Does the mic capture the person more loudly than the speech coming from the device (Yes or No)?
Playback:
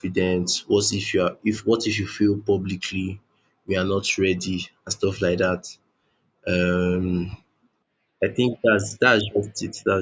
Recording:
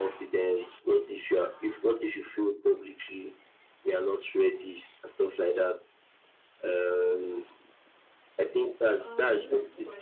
No